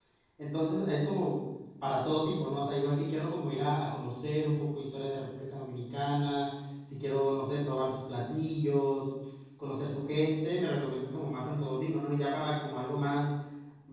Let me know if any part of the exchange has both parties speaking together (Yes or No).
No